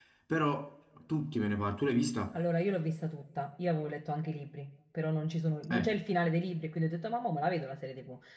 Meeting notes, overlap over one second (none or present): none